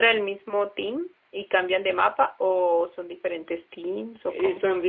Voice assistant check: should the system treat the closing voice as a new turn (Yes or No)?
Yes